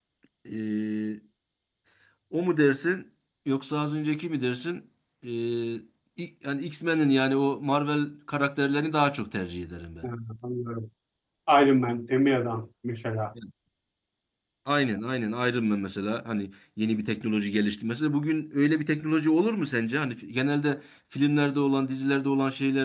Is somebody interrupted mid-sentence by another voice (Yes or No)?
No